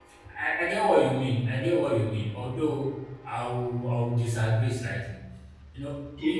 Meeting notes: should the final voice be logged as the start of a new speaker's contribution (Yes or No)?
Yes